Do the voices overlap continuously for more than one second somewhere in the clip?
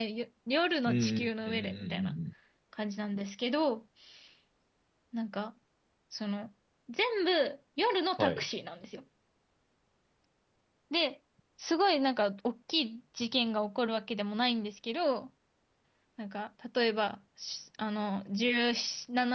Yes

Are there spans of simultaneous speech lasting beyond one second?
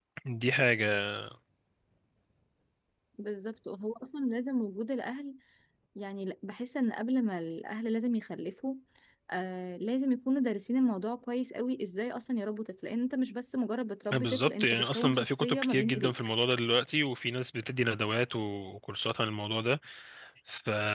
Yes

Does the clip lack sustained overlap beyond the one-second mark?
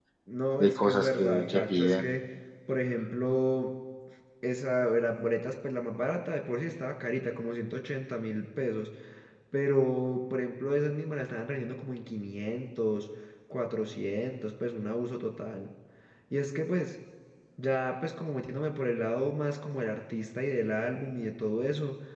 No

